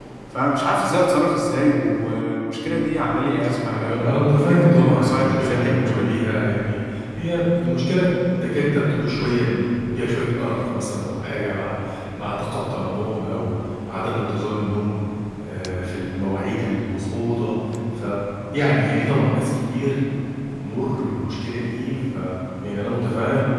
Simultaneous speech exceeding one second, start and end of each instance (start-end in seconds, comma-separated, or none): 3.8-6.2